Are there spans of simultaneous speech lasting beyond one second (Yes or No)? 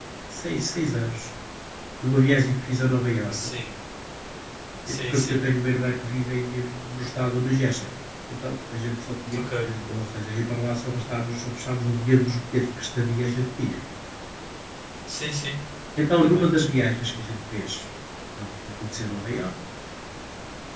No